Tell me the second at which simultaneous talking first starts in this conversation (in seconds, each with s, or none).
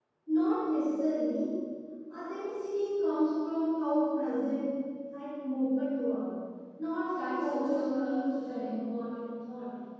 7.2 s